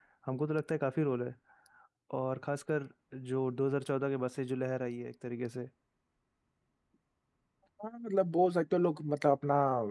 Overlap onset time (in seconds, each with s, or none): none